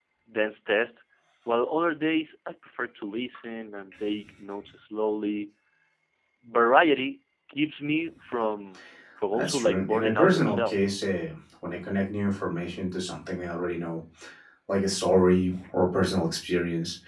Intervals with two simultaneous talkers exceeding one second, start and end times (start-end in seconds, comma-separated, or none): 9.3-10.8